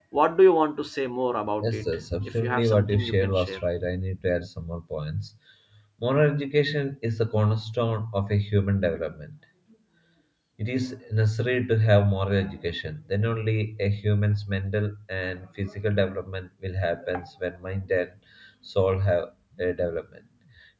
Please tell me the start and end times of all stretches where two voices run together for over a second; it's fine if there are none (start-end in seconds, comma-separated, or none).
2.2-3.6